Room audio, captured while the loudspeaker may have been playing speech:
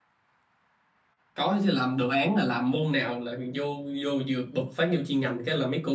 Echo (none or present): none